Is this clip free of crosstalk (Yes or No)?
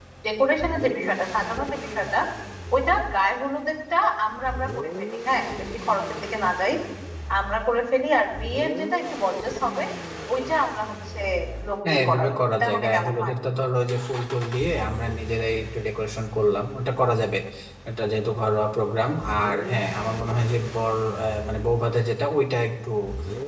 No